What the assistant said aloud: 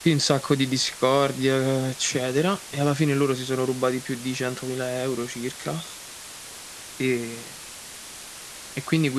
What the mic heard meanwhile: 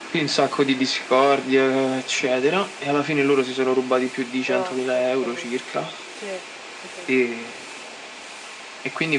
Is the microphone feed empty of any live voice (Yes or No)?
No